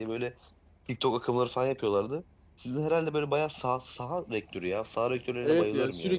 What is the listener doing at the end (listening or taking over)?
taking over